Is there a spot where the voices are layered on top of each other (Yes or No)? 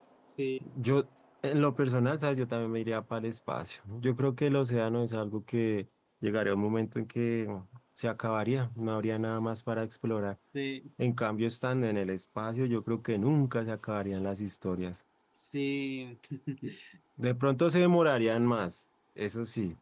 No